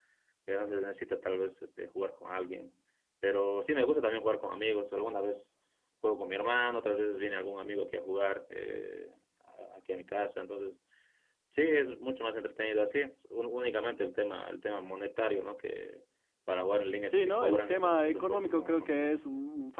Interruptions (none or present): present